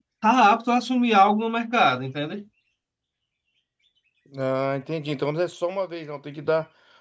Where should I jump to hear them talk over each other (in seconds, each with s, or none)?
none